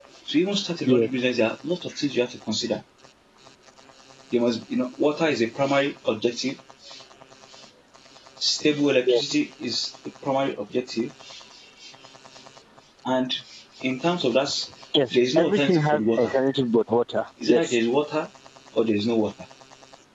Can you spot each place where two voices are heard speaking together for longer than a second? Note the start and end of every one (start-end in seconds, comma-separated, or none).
15.1-16.3